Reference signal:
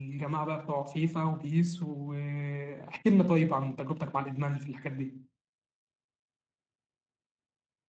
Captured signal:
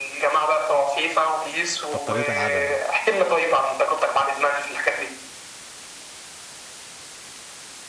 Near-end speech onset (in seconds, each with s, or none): 1.9 s